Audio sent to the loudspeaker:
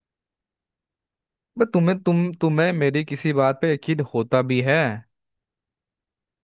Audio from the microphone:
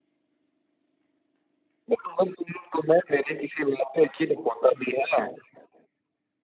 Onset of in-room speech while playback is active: none

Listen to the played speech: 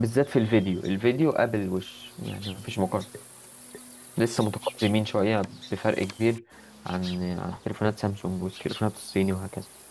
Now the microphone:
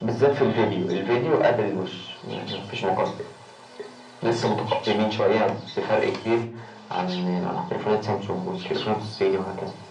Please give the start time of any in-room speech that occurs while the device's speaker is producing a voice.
none

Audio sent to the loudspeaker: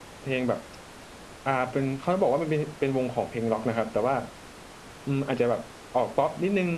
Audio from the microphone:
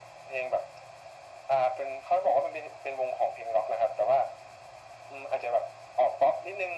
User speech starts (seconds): none

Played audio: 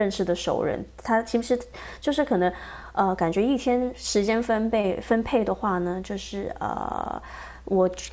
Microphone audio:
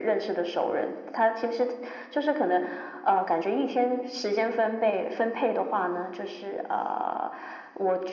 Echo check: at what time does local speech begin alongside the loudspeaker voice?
none

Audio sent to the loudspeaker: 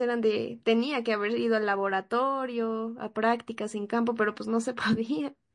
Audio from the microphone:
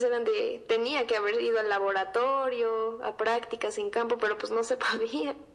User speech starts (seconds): none

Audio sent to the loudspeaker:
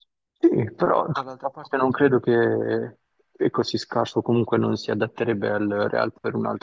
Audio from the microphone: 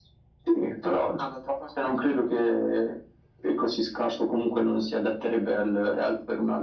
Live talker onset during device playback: none

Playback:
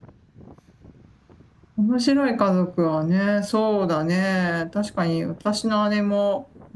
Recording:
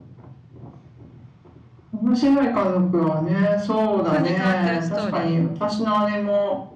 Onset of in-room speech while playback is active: 3.9 s

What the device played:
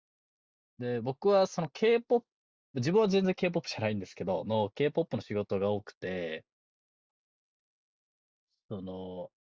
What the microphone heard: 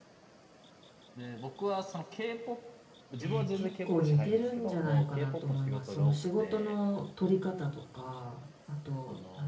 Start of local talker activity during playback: 3.2 s

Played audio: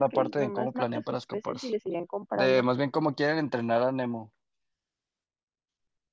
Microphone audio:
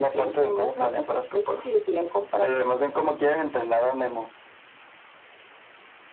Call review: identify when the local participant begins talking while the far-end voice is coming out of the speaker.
none

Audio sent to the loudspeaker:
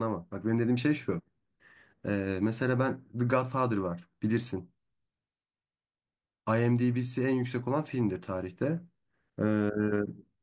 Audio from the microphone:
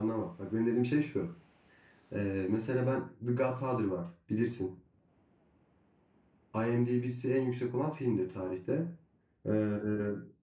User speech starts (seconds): none

